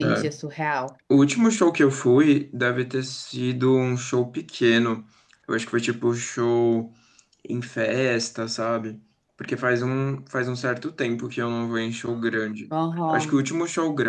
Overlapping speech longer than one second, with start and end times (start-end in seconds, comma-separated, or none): none